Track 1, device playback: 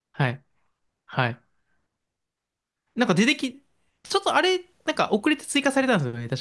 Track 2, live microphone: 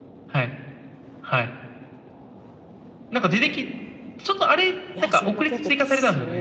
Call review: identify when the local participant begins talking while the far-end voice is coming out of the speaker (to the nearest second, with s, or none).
5 s